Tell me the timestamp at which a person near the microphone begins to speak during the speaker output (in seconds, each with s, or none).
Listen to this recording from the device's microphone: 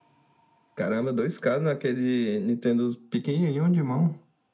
none